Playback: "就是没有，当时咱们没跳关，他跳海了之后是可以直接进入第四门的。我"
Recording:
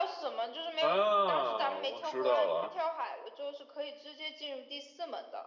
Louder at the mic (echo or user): user